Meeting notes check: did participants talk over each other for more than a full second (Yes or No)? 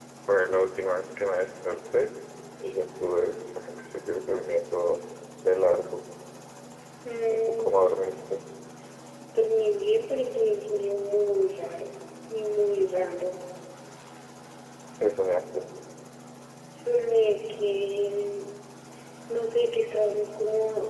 No